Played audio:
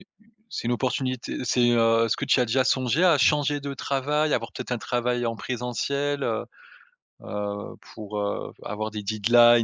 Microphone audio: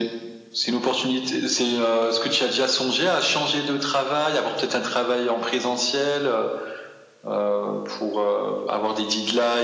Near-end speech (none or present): none